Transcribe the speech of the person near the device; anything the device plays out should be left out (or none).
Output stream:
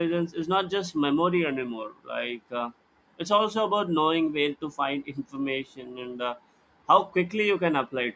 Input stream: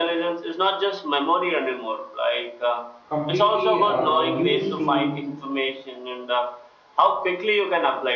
completely uh, used to